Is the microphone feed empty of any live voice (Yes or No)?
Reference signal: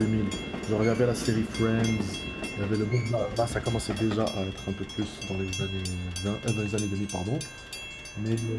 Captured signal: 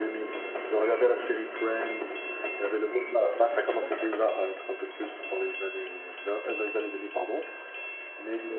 No